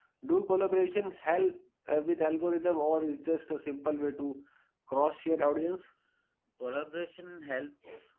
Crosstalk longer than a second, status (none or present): none